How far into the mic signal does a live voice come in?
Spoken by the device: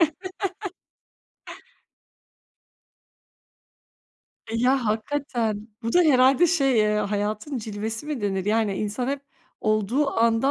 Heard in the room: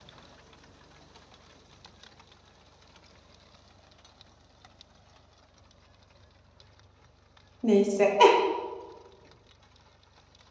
8 s

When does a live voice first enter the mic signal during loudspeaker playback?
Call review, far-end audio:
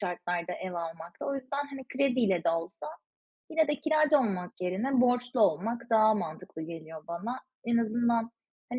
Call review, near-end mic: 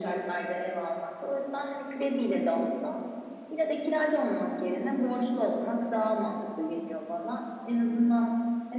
none

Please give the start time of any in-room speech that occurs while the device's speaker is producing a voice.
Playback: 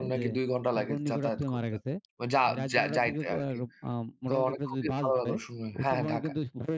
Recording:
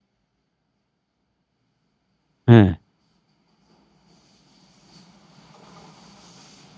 2 s

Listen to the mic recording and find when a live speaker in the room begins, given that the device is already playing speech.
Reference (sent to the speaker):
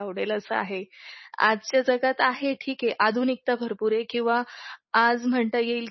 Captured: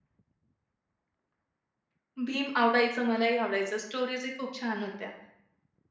2 s

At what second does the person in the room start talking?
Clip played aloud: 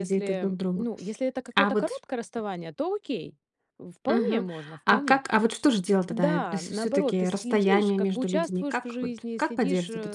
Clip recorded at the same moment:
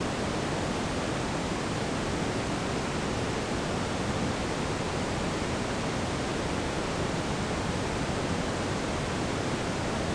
none

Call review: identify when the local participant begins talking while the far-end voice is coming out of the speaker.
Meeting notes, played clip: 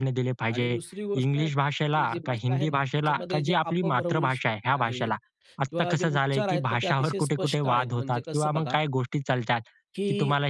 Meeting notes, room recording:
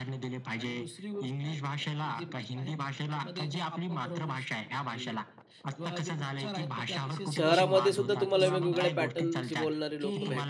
7 s

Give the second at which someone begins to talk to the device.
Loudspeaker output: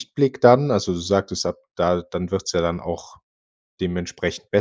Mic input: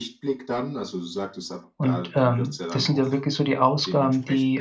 2 s

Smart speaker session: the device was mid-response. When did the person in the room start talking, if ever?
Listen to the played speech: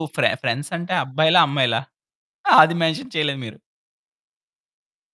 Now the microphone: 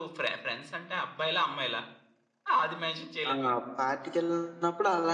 3 s

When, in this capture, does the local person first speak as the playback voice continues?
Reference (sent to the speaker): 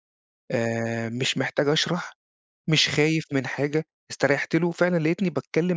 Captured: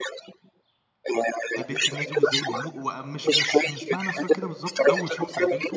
2 s

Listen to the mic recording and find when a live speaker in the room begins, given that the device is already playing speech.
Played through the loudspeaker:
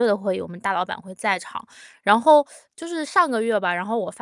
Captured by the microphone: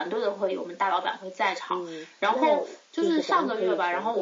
2 s

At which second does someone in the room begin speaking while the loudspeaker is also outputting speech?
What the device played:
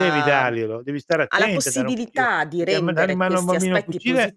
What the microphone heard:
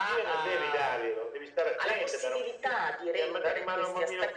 none

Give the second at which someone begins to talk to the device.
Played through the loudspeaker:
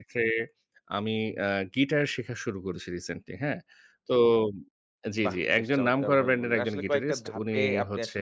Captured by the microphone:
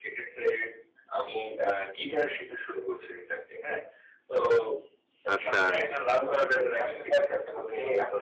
5 s

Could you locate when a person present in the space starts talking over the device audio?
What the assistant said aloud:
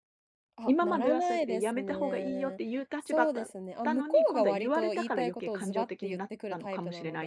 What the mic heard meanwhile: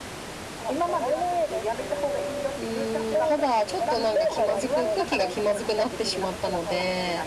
3 s

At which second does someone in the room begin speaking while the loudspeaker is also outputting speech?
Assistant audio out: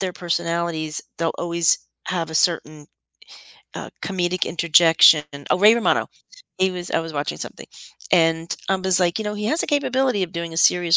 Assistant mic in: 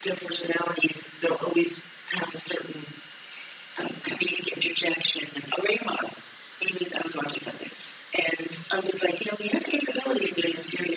none

